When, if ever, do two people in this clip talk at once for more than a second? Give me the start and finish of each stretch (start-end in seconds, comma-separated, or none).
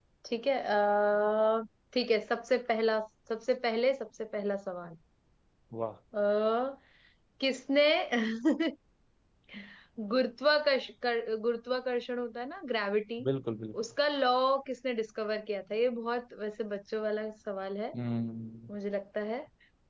none